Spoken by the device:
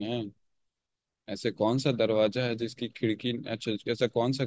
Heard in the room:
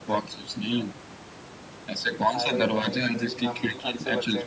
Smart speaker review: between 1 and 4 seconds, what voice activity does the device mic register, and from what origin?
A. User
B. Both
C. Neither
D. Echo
B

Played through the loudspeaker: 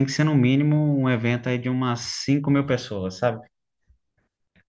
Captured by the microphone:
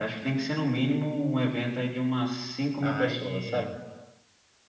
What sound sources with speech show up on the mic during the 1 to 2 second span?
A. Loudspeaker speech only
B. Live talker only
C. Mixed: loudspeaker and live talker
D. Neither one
A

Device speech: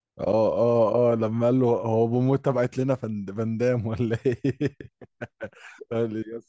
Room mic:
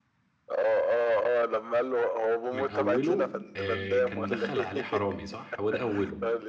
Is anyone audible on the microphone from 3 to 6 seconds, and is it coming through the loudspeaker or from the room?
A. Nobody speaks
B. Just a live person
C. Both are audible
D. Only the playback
C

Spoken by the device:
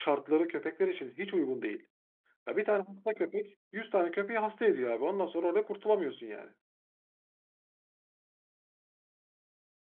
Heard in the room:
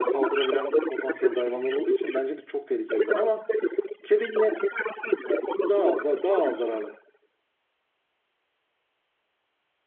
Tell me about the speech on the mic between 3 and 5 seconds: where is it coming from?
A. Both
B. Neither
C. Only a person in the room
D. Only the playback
A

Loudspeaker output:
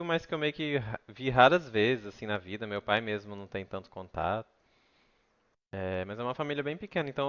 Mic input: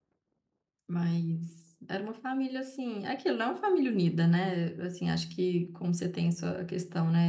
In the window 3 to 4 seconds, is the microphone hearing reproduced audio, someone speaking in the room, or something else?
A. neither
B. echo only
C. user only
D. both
C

